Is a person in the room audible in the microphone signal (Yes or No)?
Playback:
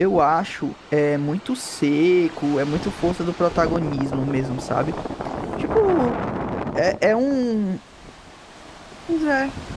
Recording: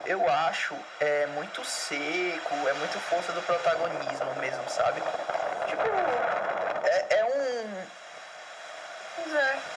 No